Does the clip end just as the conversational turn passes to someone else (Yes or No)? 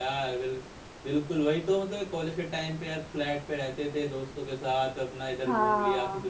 No